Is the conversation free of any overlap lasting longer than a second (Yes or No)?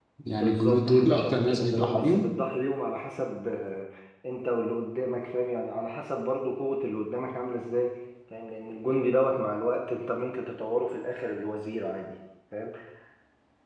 No